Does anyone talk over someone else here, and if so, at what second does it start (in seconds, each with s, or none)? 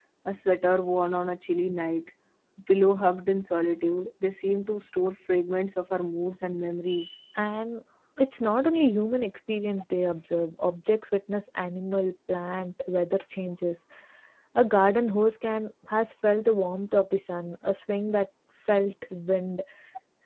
none